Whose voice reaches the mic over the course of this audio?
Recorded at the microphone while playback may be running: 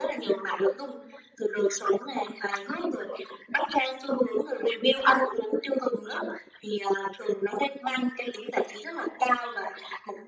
echo only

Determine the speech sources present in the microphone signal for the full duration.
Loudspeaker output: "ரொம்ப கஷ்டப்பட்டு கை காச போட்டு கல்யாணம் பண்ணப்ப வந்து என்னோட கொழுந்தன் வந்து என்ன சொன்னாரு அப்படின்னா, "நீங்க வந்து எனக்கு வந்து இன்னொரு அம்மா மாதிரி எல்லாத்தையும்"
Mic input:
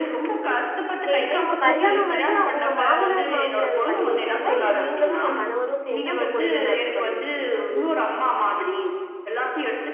both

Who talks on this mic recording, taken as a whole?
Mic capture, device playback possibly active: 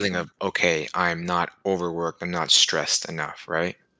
user only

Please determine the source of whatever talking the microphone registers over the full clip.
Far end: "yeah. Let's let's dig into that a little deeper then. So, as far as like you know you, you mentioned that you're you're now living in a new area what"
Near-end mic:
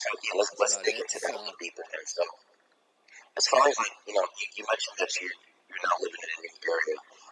both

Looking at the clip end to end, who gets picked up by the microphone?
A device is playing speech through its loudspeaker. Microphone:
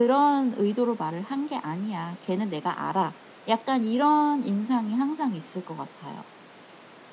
echo only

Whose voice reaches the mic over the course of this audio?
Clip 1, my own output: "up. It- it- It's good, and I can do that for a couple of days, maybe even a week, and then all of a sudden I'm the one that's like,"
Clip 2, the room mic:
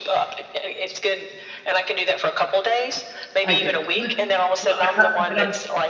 both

